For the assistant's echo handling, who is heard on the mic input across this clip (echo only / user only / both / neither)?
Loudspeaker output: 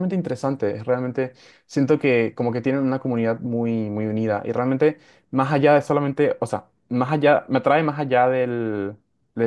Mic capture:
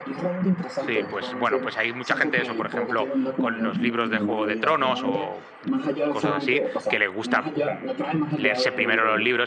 both